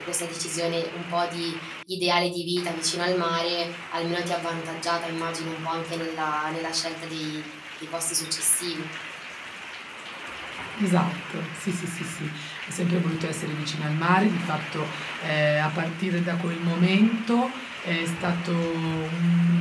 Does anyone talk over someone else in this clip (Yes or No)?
No